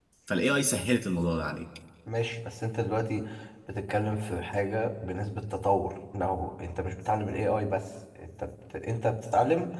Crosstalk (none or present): none